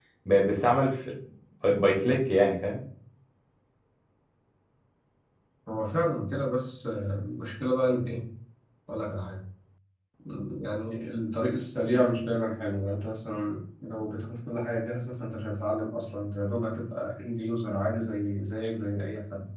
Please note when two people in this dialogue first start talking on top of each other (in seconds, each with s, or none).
none